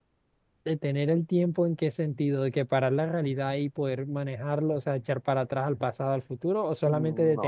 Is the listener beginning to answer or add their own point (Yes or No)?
Yes